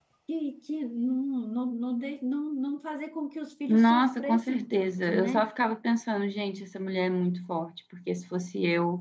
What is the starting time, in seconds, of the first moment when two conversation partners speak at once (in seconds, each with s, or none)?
3.7 s